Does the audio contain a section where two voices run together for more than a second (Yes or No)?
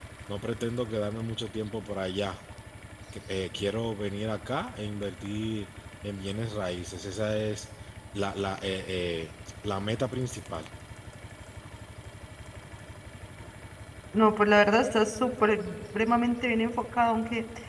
No